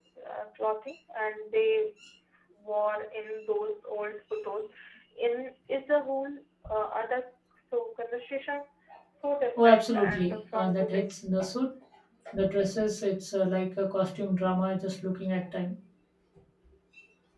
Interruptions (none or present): present